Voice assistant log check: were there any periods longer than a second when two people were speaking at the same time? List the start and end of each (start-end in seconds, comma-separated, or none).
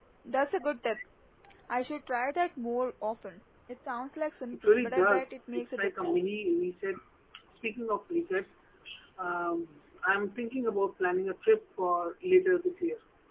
4.5-6.2